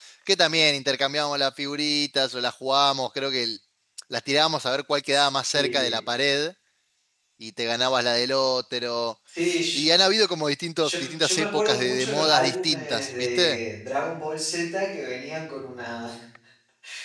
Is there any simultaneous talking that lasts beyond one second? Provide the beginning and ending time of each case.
10.8-13.6

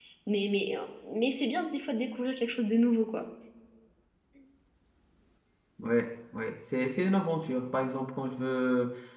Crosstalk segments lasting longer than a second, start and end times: none

